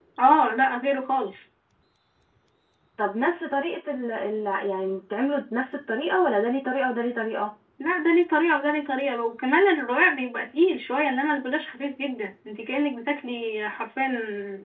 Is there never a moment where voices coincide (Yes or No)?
Yes